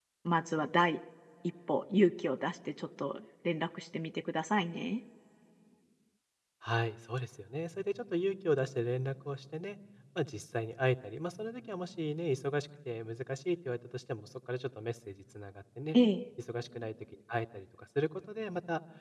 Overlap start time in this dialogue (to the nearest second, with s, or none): none